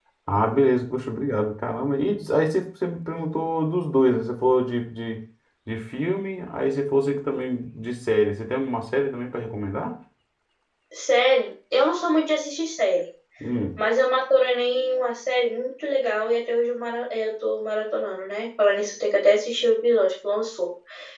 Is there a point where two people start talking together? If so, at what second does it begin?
none

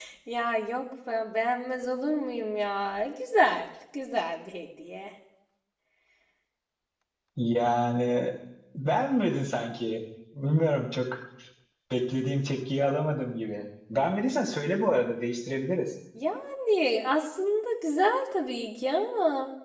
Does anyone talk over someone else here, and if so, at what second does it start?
none

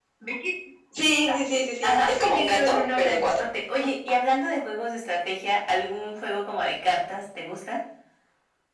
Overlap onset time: 2 s

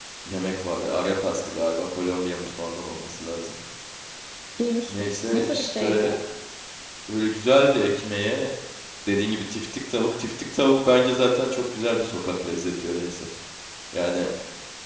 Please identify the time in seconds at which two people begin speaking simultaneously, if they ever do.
5 s

